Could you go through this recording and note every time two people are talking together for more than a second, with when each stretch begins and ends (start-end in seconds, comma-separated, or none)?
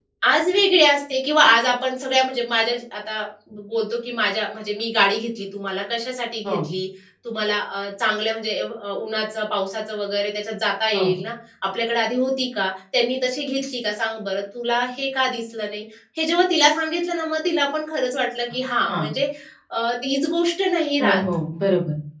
none